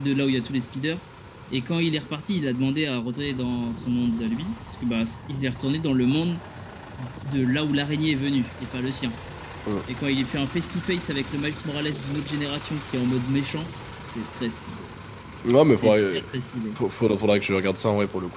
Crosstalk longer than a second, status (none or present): none